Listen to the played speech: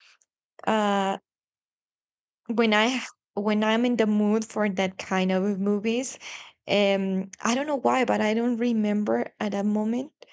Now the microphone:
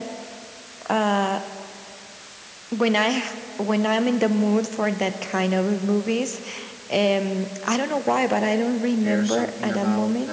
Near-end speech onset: 9 s

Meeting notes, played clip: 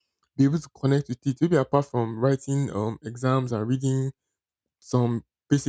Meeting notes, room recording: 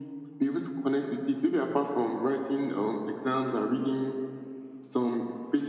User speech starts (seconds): none

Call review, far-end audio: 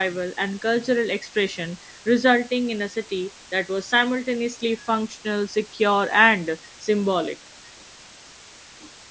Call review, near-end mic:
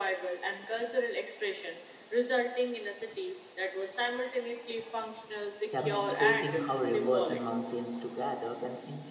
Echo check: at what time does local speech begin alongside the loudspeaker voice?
6 s

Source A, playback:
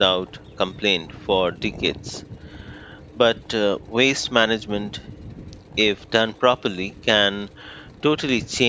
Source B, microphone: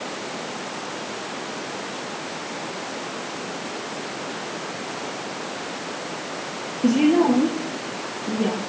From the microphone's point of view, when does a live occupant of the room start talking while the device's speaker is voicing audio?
7 s

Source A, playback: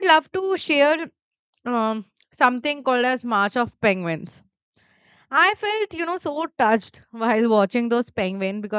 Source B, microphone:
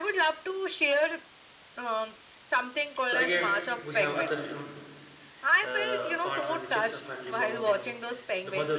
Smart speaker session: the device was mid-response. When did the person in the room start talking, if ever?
3 s

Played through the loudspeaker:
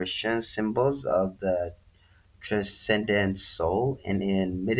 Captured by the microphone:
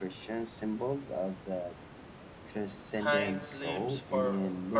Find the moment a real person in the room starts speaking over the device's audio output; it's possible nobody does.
3 s

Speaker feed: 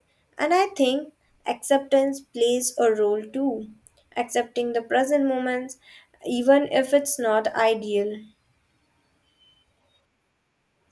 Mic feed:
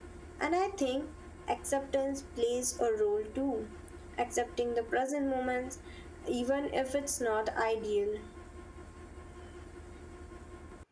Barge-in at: none

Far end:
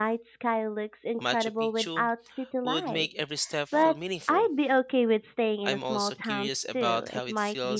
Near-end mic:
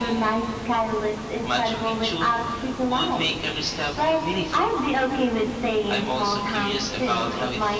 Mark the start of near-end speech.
none

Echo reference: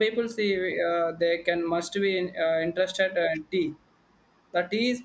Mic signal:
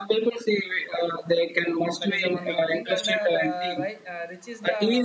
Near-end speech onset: 2 s

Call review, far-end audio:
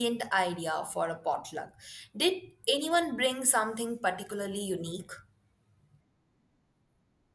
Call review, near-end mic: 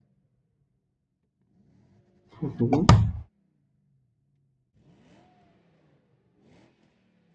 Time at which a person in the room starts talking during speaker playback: 2 s

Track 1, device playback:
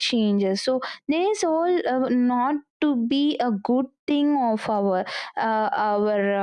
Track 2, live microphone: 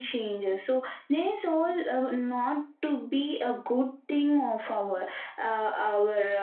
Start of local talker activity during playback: none

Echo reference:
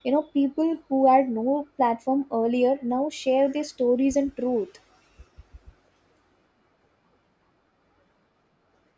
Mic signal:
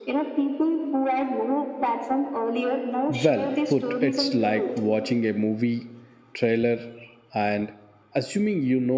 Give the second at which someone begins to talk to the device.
3 s

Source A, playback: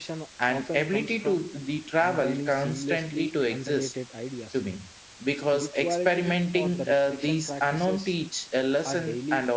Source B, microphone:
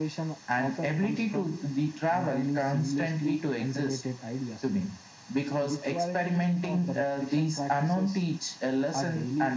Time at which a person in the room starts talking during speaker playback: none

